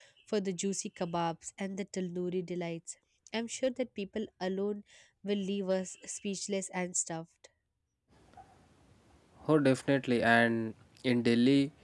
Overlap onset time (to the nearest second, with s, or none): none